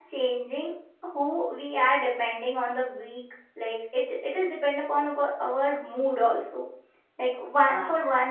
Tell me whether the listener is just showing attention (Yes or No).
Yes